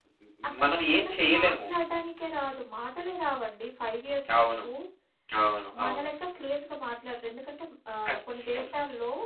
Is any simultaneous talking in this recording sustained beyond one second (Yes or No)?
Yes